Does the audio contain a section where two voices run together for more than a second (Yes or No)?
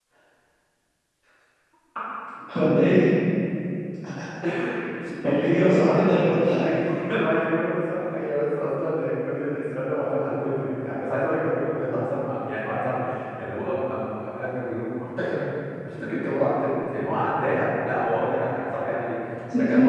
Yes